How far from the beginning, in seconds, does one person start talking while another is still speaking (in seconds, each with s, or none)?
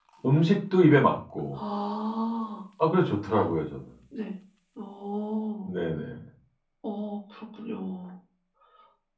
none